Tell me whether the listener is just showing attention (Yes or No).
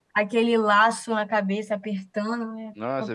No